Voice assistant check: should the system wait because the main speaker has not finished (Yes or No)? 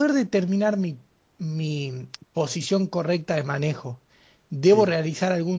Yes